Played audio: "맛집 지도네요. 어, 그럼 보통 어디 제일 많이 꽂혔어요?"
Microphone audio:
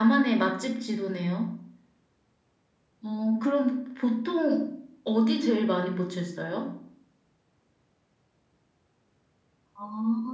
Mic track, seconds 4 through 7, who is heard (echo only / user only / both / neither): echo only